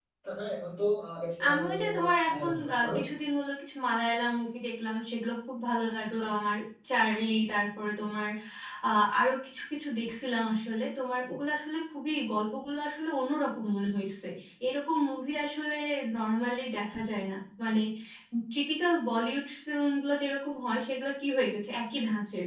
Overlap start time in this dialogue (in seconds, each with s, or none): 1.4 s